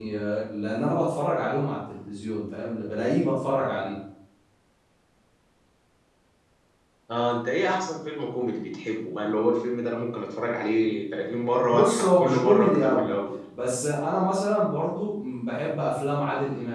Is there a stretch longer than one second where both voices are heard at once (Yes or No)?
Yes